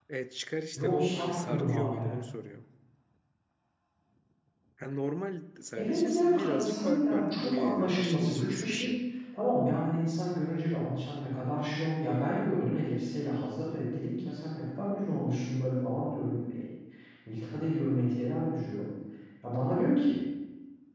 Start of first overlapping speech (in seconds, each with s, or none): 0.7 s